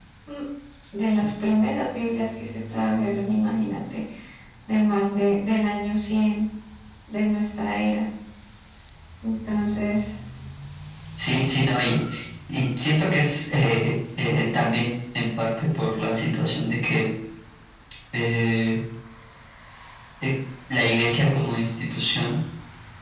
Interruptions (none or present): none